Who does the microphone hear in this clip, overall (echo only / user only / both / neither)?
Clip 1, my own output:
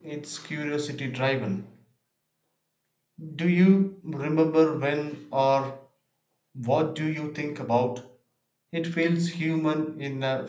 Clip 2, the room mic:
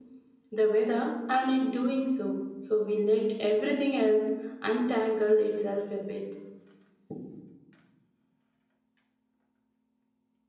user only